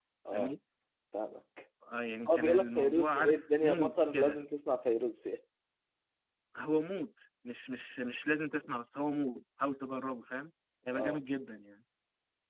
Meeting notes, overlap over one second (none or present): present